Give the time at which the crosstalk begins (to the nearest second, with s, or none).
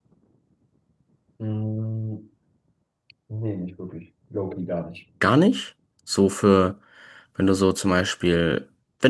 none